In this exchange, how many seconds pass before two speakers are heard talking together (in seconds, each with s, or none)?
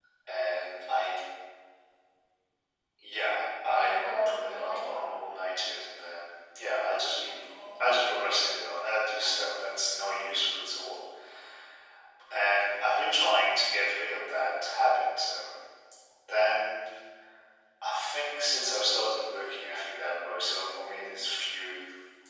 3.6 s